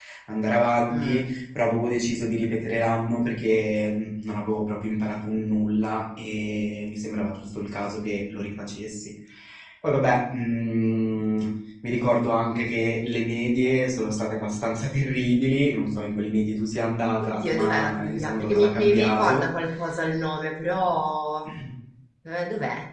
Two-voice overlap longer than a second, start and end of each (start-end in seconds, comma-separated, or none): 17.2-19.4